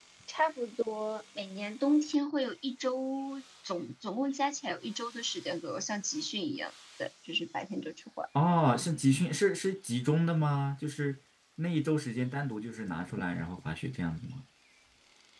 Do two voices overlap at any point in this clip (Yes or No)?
No